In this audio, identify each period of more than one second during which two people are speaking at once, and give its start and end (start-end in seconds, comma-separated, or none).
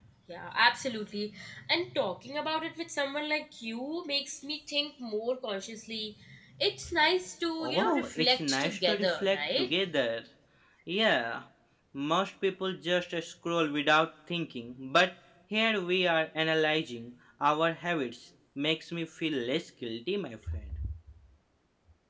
7.6-9.7